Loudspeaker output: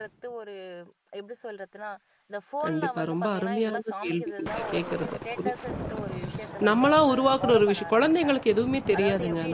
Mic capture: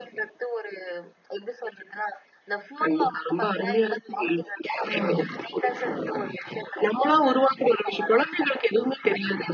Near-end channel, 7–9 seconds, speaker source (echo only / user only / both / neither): echo only